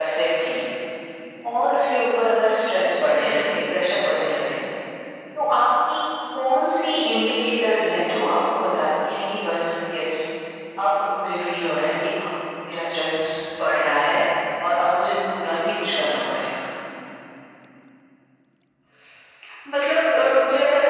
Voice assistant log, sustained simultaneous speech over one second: none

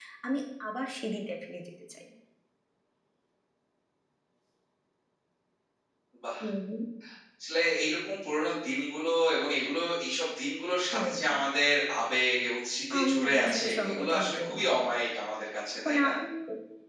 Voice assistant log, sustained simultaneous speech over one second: present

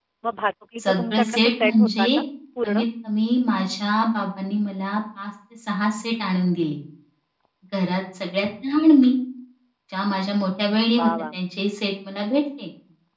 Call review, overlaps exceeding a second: present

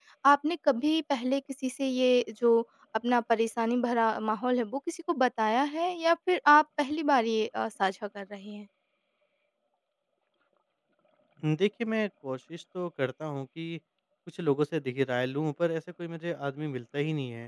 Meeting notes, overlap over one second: none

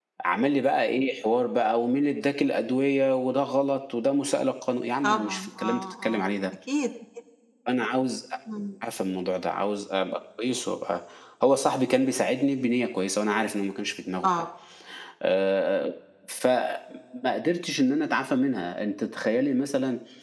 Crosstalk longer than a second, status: present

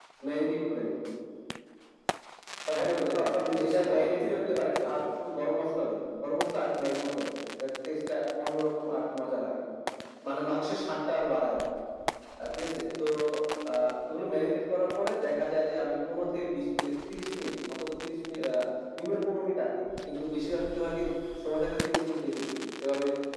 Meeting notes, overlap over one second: present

